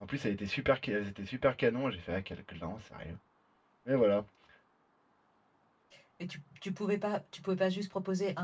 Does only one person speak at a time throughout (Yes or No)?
Yes